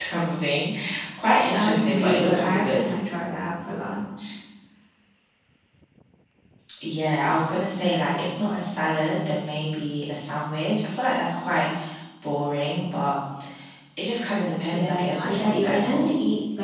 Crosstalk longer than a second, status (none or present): present